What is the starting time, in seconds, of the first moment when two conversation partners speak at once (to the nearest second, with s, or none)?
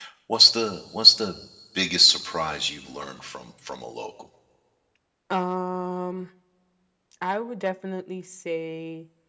none